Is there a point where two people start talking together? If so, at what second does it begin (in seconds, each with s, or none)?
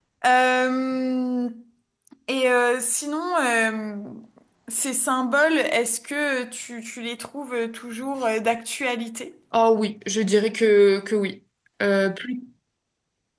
none